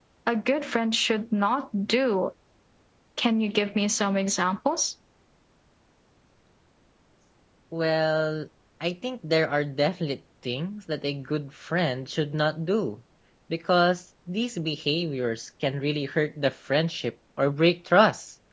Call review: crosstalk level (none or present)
none